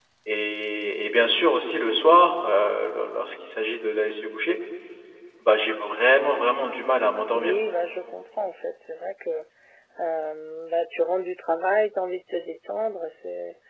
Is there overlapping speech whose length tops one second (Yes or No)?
No